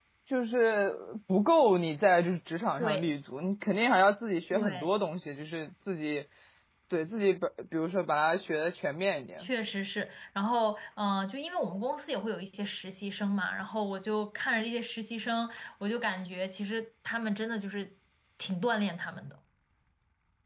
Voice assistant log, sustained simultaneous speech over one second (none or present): none